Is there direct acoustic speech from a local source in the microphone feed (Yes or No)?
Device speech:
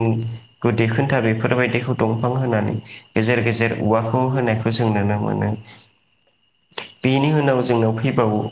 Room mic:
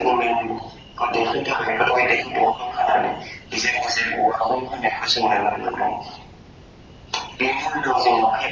No